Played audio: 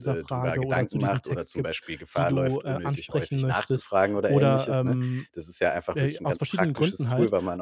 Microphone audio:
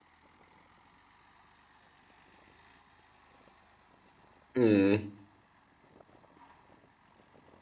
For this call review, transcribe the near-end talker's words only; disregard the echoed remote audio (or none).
Mhm.